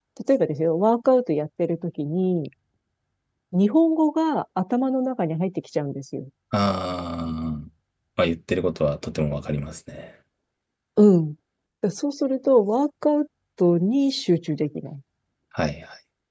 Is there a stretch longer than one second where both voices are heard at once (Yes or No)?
No